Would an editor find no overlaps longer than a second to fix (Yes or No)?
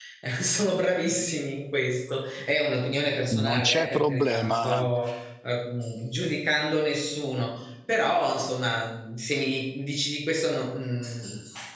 No